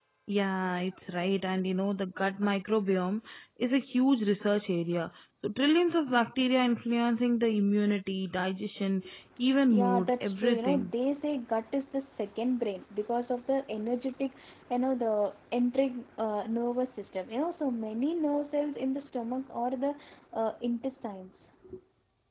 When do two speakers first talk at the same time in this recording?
9.7 s

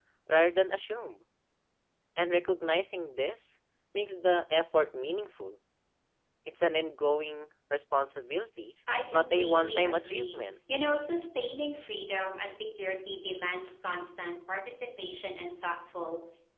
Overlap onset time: 8.9 s

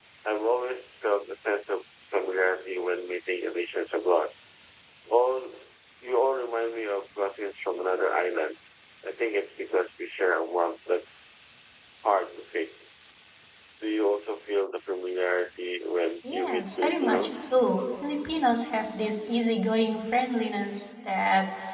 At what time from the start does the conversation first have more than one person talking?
16.2 s

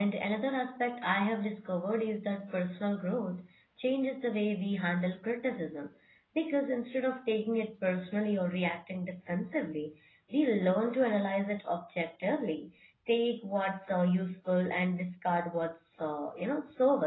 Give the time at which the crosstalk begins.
none

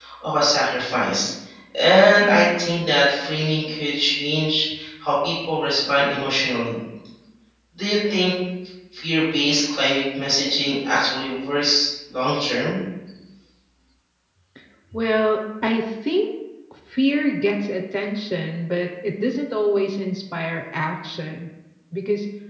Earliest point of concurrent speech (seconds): none

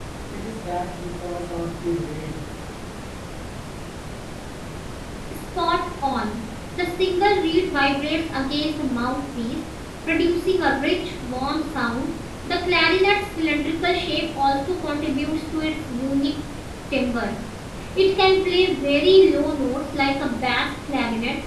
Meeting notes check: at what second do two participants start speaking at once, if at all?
none

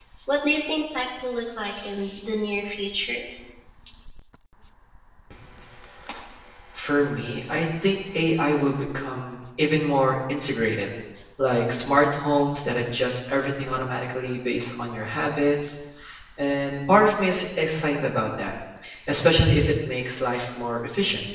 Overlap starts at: none

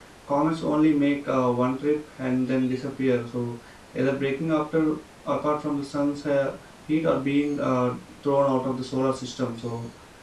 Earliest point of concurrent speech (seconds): none

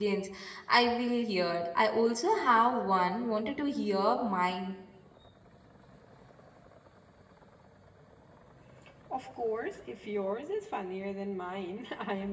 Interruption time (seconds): none

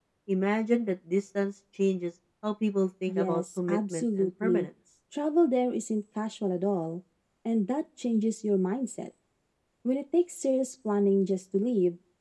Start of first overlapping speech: 3.1 s

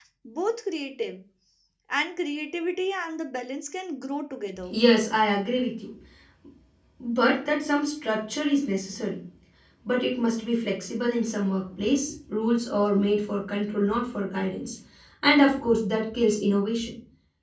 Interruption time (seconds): none

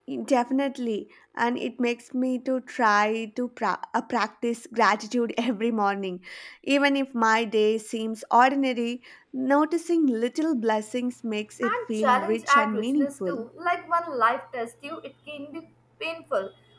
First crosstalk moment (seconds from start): 11.6 s

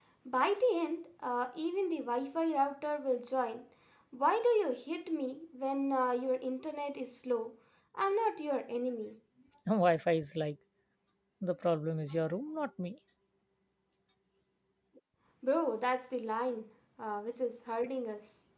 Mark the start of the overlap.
none

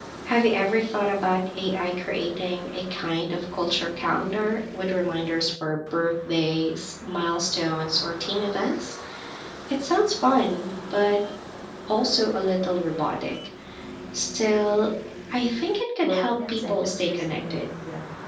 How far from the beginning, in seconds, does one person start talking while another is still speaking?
16.0 s

